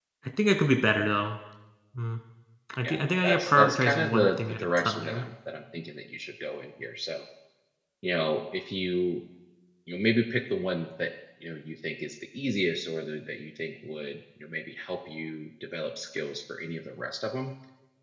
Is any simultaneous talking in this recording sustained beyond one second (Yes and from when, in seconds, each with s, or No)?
Yes, from 2.8 s